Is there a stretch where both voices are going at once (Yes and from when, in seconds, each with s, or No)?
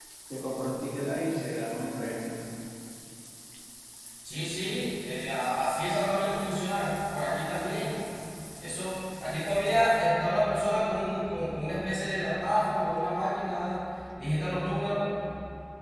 No